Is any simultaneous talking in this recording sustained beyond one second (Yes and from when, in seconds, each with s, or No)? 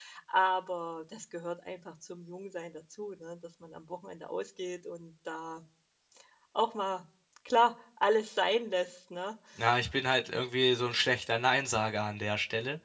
No